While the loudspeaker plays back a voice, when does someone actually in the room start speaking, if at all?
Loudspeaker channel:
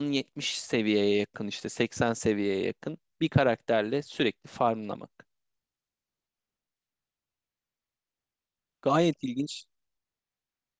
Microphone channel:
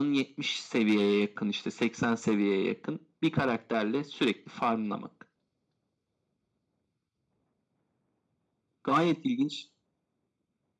none

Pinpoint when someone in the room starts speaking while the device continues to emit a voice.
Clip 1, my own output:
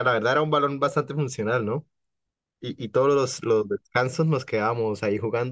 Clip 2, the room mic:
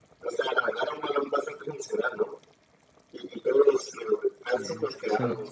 4 s

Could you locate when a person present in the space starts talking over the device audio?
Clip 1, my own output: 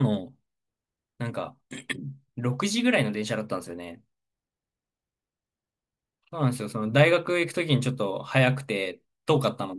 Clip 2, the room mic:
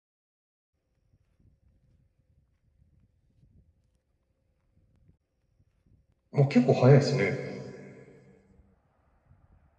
6 s

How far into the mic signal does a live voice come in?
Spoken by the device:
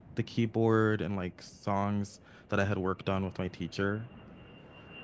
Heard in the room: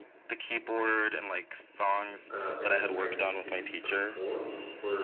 2 s

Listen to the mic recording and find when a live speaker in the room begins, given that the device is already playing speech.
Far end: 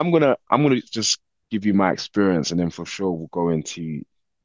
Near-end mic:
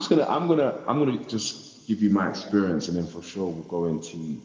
none

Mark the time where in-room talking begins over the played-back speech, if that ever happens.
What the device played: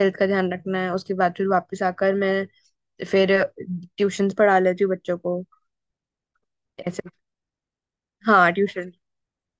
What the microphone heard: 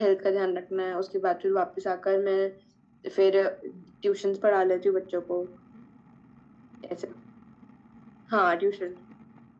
none

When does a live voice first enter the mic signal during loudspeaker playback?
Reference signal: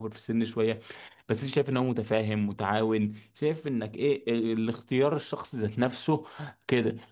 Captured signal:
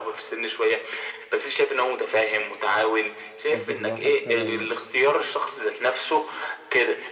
3 s

